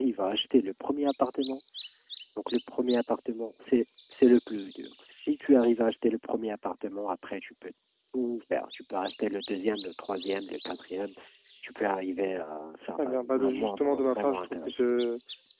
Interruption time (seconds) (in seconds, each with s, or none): 13.0 s